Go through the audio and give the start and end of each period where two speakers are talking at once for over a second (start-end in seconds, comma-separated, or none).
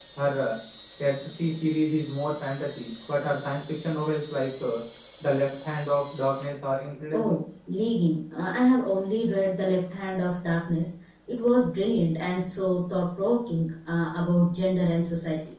none